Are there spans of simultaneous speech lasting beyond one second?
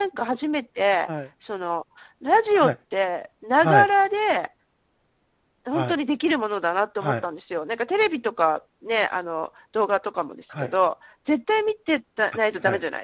No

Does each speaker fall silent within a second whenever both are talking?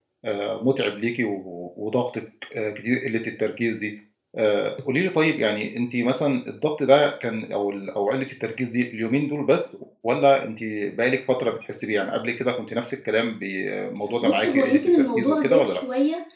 No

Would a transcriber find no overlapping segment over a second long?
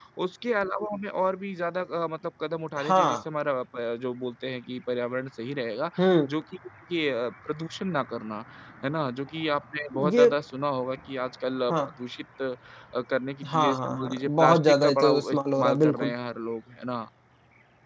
No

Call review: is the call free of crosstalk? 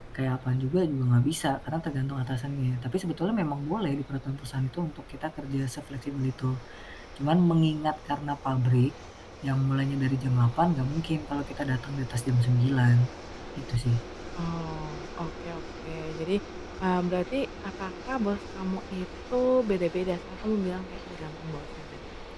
Yes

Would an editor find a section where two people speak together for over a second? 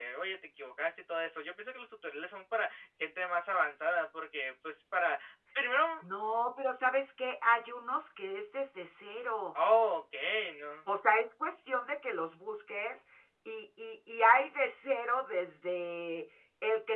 No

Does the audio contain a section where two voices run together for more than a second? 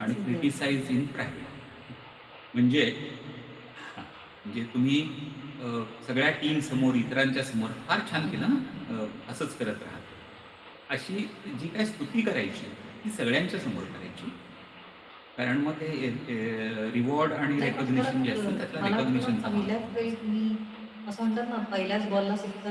Yes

